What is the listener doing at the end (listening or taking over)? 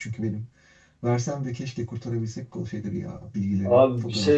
taking over